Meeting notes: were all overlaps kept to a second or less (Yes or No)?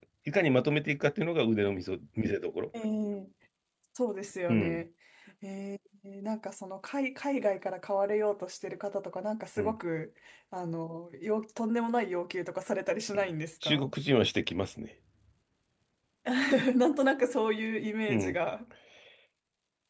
Yes